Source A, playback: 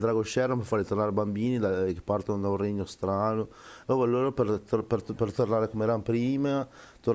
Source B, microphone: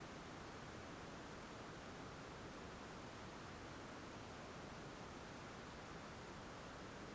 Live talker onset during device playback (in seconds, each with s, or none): none